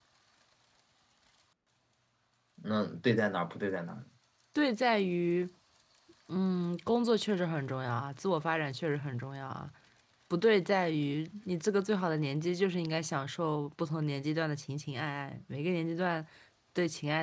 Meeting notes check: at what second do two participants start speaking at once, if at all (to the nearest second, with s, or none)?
none